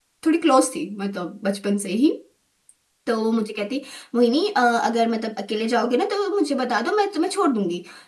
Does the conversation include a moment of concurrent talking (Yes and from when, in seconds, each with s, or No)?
No